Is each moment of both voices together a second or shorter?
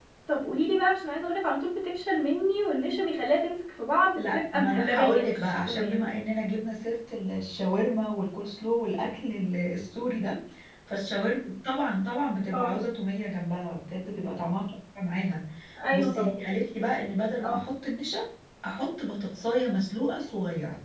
No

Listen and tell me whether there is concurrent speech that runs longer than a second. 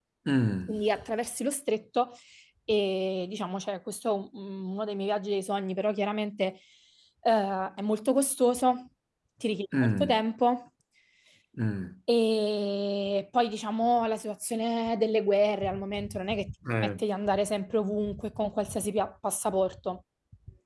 No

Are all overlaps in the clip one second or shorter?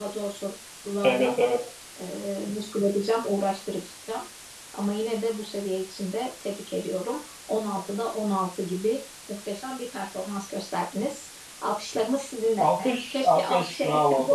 No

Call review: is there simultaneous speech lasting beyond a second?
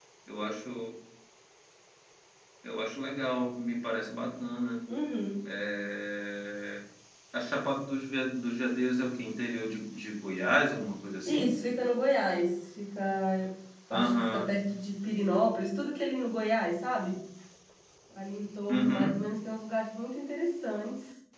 No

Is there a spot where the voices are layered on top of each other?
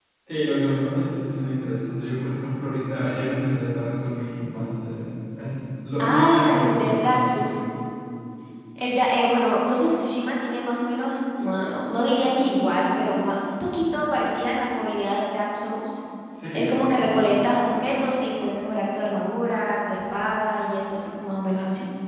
Yes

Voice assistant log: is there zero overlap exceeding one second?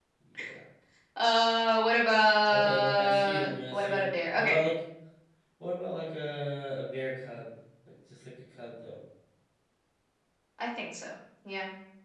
No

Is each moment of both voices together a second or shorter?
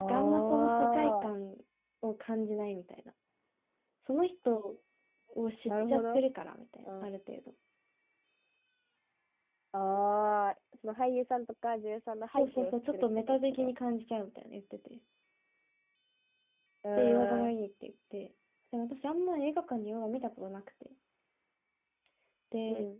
No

